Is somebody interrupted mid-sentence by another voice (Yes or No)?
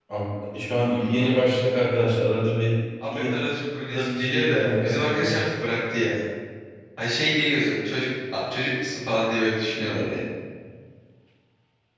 Yes